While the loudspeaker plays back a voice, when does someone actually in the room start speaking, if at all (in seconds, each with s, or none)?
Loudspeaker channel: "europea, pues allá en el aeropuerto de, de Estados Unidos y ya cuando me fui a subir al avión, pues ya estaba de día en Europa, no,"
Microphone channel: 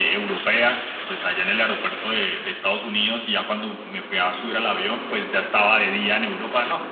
none